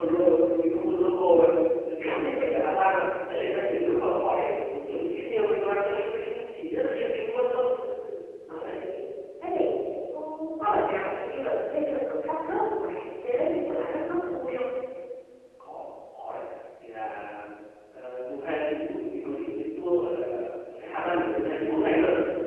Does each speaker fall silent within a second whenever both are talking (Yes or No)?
Yes